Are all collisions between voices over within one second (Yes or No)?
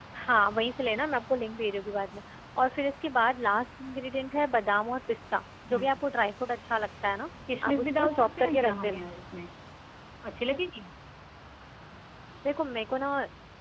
No